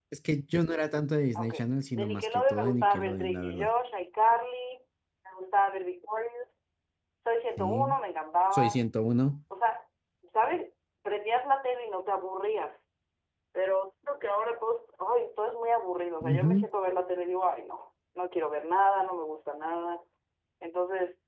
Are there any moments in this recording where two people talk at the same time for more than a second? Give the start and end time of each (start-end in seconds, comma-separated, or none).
1.9-3.7